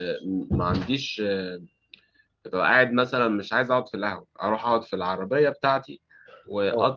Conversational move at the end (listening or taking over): listening